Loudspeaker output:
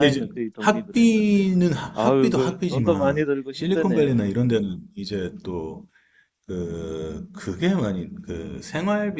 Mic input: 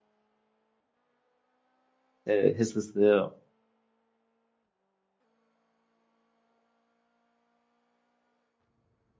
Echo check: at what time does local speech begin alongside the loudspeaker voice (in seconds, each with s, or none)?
2.3 s